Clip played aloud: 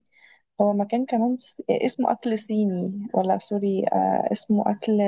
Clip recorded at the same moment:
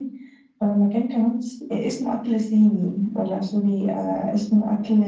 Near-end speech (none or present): none